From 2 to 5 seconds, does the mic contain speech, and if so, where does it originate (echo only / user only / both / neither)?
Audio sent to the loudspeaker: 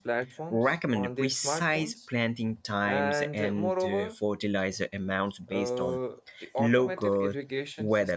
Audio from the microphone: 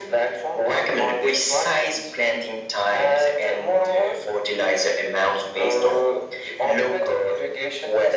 echo only